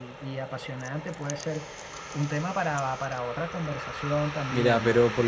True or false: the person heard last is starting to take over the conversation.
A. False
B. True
B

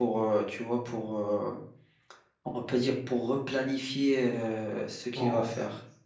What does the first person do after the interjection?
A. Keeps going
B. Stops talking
B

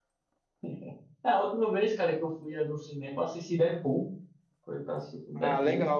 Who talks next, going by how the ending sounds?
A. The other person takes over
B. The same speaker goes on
A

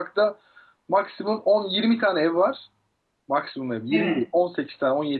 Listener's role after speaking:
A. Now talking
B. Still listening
B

